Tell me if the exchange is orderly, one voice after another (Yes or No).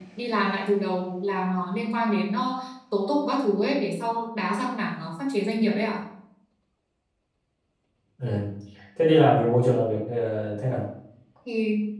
Yes